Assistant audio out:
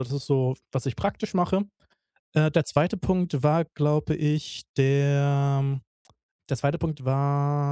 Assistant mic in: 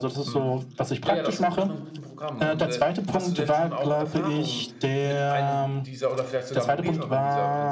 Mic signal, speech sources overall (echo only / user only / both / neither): both